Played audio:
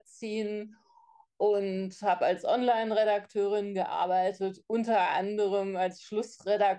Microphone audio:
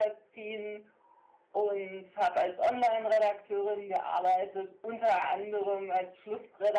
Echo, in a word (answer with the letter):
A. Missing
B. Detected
B